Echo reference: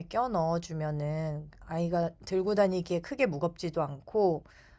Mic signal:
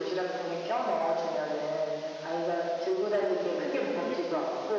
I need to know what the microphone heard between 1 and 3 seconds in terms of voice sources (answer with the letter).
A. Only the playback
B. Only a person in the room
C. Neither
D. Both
A